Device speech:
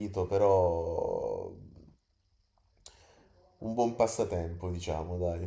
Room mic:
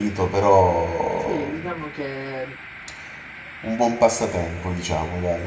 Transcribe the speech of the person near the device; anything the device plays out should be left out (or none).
Sì, diciamo che